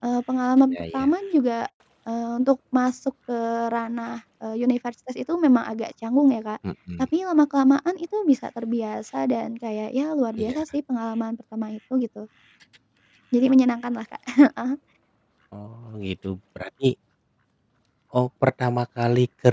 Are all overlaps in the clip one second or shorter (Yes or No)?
Yes